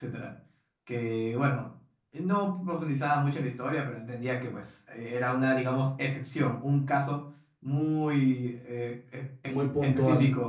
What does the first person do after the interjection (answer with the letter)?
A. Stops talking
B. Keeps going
B